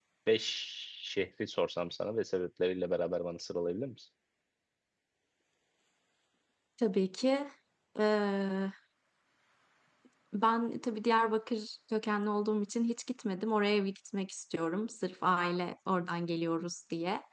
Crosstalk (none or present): none